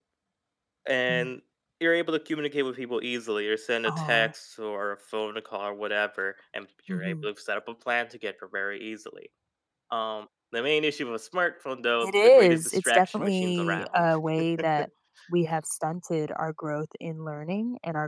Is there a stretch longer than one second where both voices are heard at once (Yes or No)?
Yes